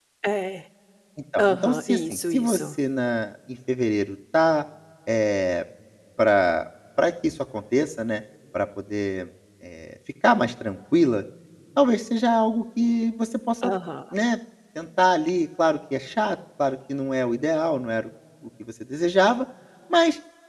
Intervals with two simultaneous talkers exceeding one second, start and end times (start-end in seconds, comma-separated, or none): 1.4-2.6